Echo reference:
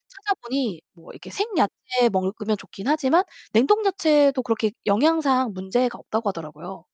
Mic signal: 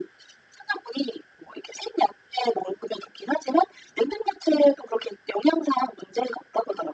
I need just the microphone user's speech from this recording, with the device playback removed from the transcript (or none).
none